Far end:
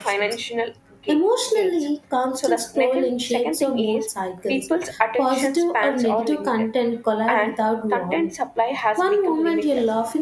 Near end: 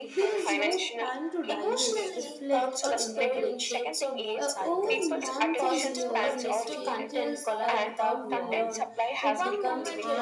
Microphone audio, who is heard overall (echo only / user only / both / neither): both